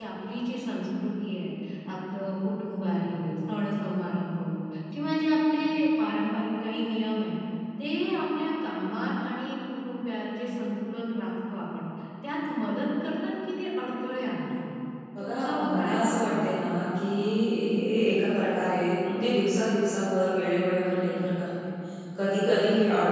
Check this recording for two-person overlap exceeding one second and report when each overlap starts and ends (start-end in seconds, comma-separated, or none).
15.2-16.7